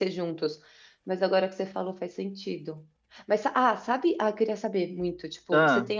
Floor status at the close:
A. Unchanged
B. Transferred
A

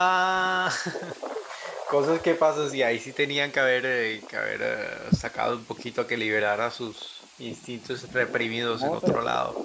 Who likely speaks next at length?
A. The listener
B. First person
A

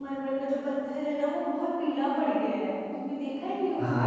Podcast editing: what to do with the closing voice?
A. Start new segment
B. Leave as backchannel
A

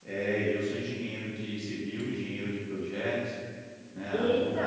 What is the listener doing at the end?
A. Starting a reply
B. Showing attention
B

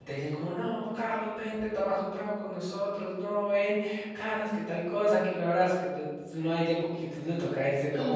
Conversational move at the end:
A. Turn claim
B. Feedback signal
A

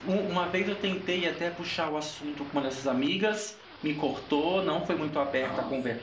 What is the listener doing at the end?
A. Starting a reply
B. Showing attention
B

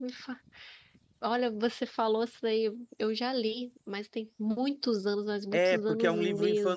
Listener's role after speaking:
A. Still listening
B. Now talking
B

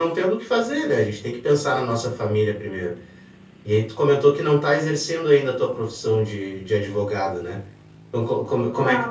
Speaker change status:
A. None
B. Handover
A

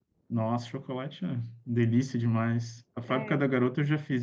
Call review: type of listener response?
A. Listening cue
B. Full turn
A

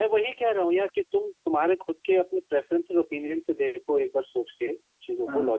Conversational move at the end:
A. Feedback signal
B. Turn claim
A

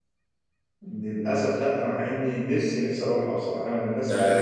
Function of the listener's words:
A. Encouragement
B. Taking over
B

